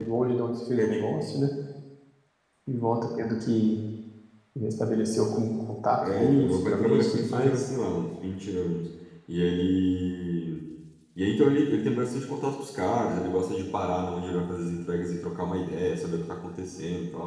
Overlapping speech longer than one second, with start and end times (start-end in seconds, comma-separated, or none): 6.0-7.6